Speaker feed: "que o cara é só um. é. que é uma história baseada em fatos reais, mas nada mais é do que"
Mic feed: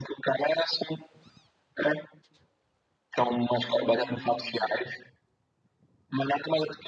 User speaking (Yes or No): Yes